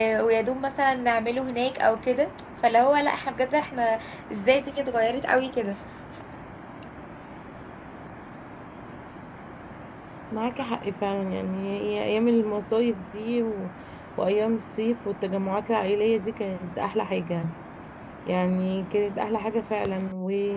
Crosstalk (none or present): none